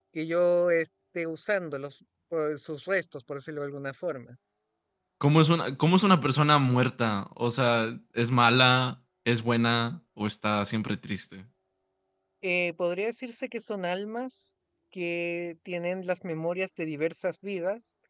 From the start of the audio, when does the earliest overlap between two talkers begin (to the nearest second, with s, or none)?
none